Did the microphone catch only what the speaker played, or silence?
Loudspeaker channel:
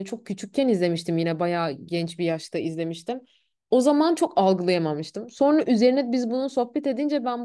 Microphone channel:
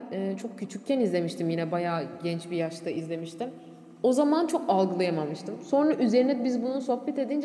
Yes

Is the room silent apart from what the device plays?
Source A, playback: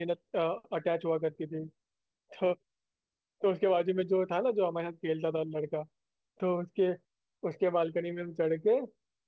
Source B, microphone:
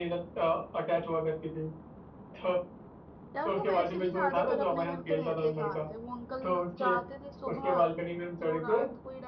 No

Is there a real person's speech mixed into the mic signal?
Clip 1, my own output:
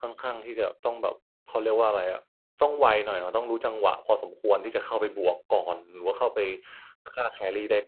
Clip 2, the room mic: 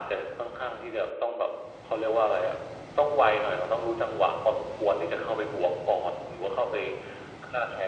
No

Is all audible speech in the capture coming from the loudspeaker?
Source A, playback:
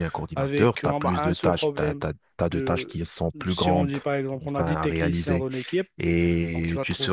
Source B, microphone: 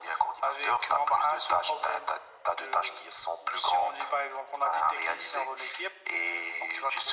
Yes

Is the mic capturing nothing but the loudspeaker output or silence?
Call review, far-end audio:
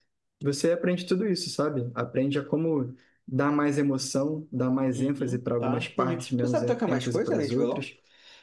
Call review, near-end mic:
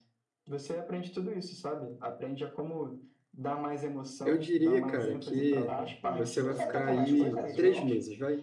No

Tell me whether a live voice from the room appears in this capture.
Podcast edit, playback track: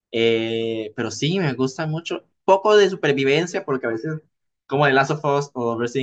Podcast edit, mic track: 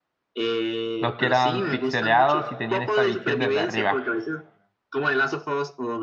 Yes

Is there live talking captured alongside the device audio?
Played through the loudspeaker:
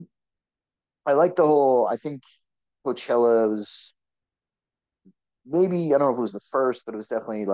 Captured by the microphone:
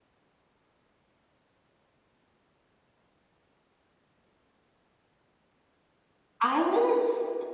Yes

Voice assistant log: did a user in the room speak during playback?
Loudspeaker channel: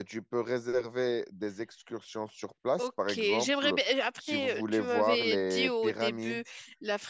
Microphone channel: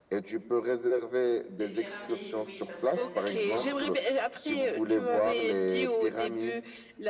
Yes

